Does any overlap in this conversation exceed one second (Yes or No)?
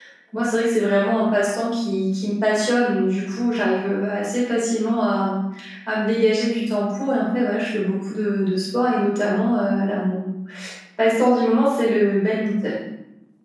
No